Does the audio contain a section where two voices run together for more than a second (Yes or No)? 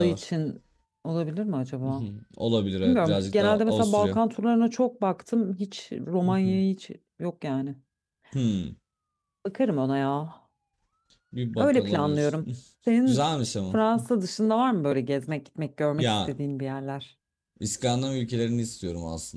Yes